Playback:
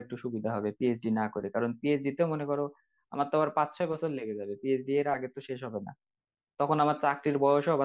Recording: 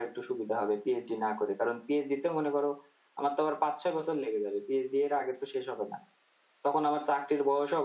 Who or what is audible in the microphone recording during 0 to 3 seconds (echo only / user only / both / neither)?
echo only